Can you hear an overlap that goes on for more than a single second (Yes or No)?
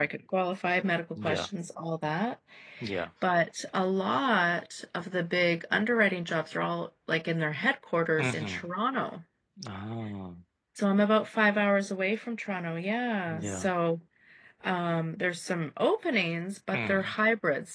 No